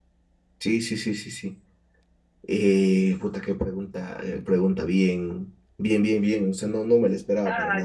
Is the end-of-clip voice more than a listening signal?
Yes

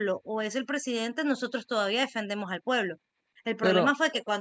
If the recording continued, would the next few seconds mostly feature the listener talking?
No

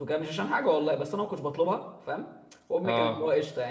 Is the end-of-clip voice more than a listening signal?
No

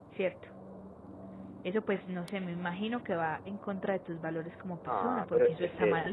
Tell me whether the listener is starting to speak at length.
Yes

